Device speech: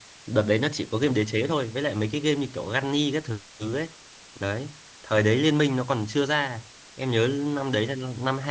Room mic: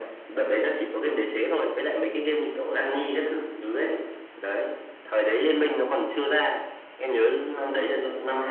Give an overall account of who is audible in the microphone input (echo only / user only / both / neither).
echo only